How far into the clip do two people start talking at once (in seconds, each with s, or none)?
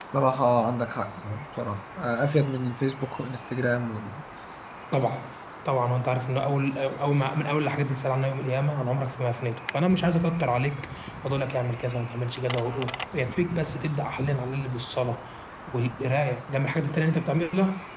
none